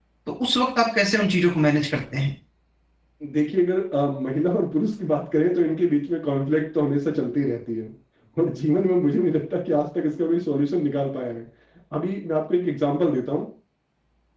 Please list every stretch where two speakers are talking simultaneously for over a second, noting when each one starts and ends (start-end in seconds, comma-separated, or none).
none